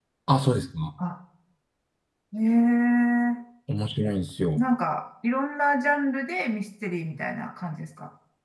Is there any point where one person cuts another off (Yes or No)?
No